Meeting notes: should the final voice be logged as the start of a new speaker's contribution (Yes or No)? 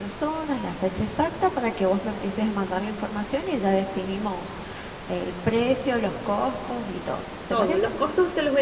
Yes